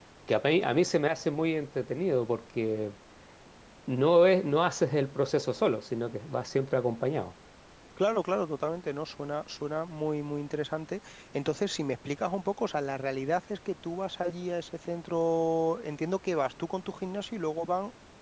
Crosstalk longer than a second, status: none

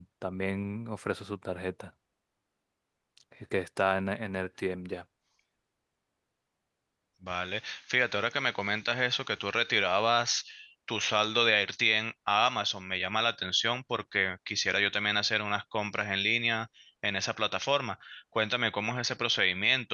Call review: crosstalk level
none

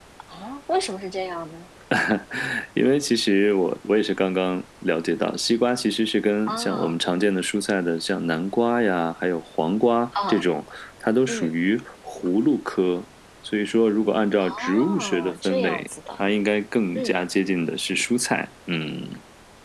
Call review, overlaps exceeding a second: present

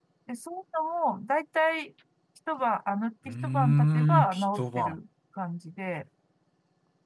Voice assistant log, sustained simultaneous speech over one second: present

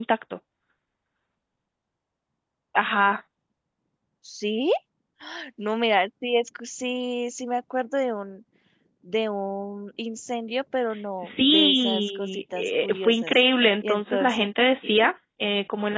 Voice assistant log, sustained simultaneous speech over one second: present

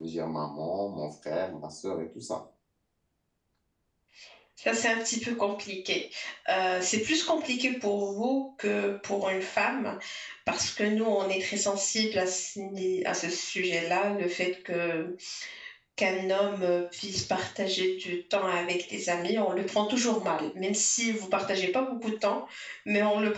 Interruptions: none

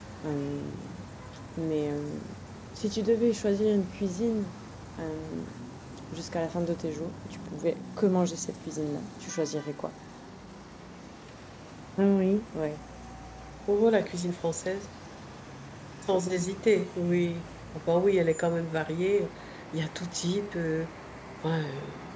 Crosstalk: none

